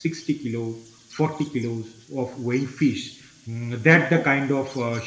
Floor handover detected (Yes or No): No